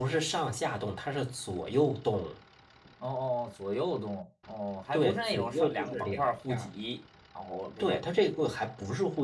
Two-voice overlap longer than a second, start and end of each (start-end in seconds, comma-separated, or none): 4.9-6.7